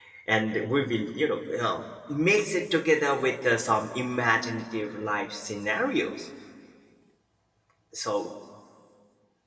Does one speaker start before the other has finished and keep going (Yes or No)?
No